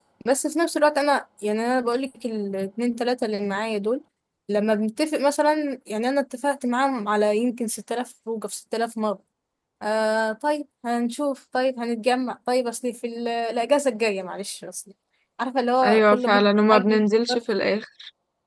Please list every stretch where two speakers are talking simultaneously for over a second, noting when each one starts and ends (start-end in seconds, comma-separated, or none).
15.8-17.4